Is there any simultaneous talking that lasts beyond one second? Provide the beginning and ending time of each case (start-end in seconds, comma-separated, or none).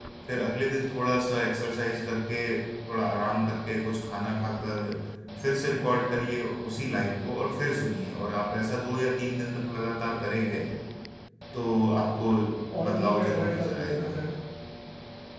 12.8-14.1